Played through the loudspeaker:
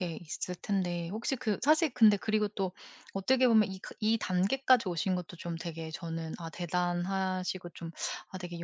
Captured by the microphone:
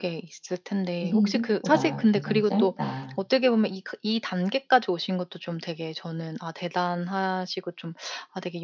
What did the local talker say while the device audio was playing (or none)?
'인생이 생각보다 굉장히 짧다.'